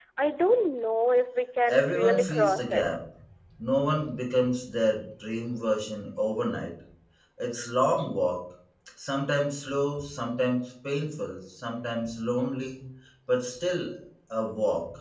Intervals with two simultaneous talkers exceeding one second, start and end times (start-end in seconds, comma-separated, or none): 1.7-2.9